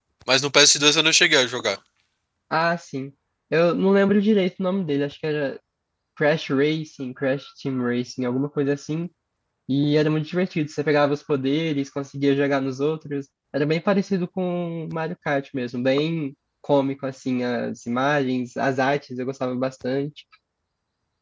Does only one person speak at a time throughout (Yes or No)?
Yes